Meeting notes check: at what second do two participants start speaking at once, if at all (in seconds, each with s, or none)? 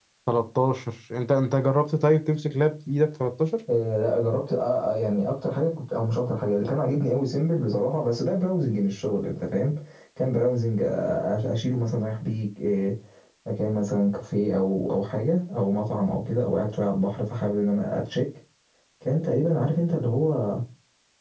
none